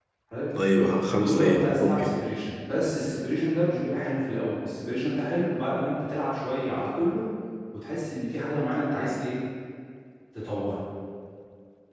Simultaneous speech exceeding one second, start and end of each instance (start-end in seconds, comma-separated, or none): 0.8-2.1